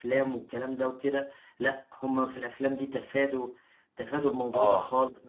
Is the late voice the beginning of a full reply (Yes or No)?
Yes